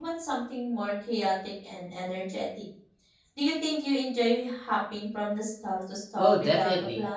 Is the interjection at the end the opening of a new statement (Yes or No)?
Yes